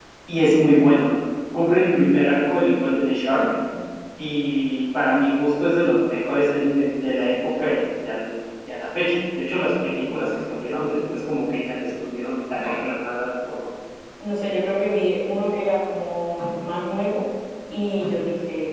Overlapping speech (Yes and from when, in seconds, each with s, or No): No